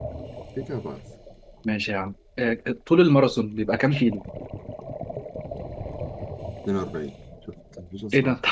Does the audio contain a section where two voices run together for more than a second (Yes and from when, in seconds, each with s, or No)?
No